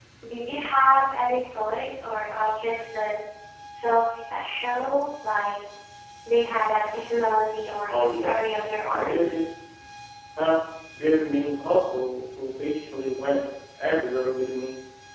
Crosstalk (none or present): present